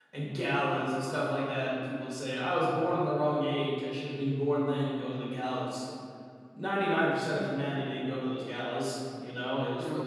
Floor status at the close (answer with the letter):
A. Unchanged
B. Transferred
A